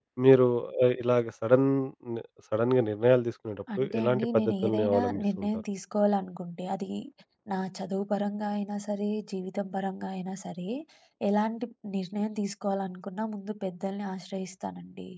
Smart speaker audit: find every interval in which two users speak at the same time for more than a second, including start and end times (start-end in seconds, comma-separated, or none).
3.8-5.5